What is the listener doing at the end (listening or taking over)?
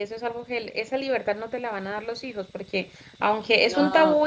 listening